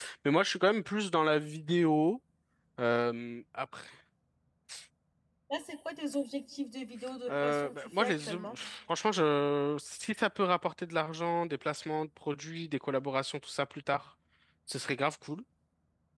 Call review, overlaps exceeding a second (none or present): present